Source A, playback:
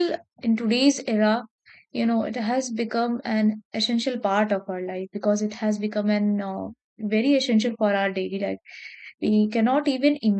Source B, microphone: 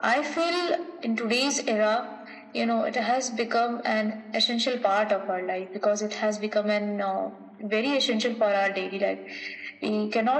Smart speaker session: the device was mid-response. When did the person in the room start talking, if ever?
none

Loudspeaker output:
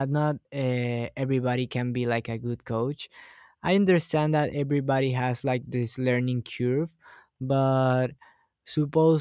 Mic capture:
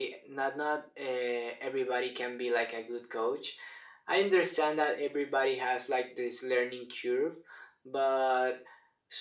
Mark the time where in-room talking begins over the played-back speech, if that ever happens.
none

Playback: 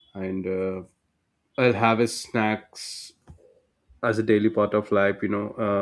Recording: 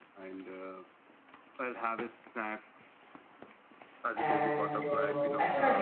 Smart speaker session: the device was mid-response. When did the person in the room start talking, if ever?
4.2 s

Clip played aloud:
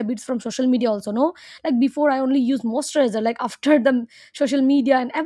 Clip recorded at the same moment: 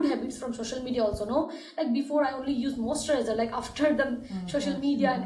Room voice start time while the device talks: 4.3 s

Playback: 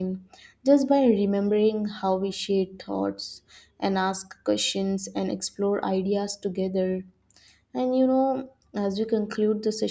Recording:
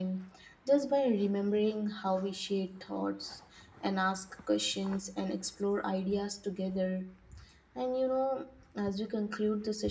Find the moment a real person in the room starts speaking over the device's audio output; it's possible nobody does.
none

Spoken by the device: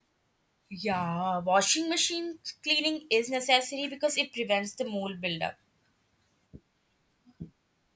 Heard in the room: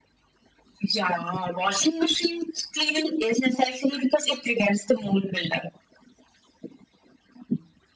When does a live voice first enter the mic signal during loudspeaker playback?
none

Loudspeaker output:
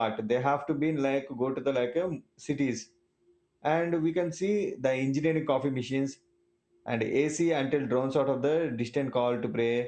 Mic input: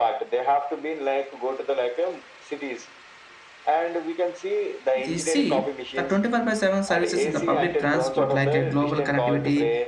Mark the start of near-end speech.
5.0 s

